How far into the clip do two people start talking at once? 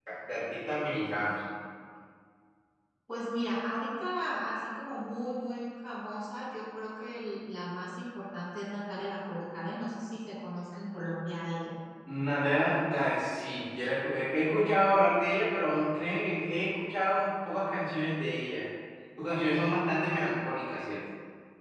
none

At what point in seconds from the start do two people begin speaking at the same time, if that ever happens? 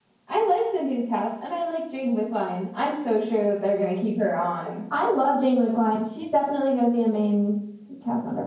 none

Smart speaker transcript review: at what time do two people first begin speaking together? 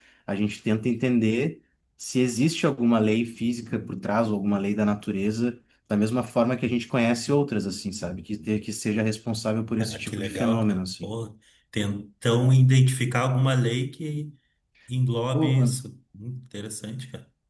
9.8 s

